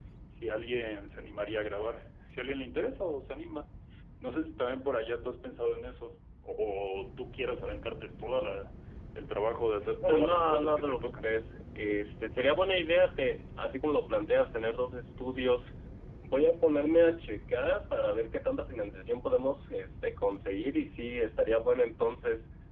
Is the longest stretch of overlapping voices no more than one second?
No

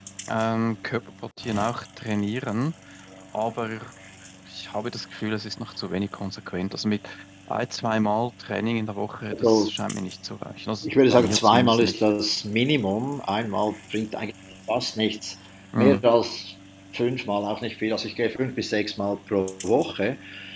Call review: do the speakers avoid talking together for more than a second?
No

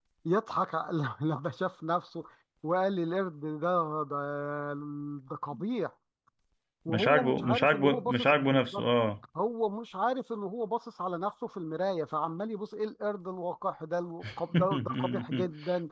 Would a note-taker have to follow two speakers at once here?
Yes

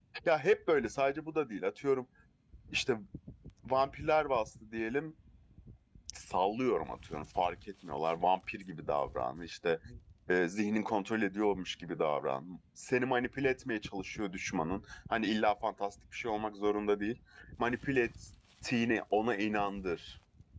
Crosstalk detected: No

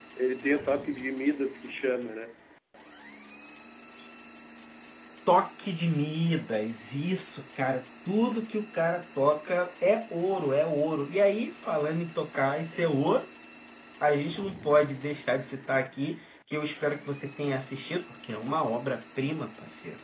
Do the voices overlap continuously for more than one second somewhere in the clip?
No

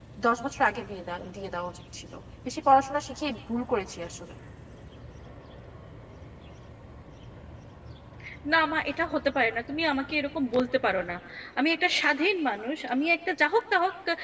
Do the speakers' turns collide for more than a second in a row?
No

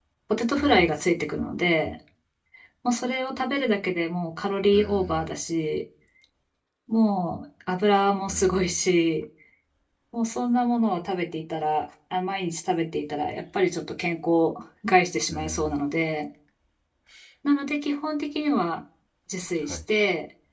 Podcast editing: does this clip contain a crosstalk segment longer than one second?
No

